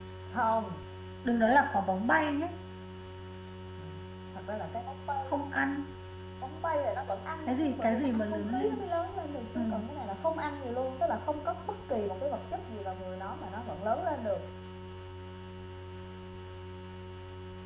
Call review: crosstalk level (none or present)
present